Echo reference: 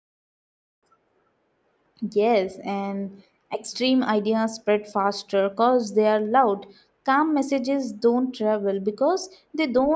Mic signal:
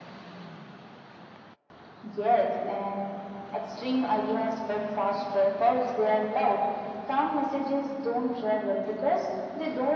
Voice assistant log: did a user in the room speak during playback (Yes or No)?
No